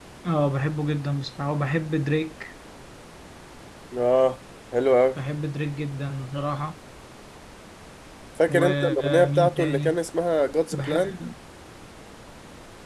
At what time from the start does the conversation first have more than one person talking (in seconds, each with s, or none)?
8.5 s